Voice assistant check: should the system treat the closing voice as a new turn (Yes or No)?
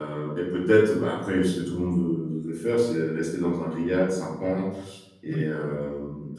No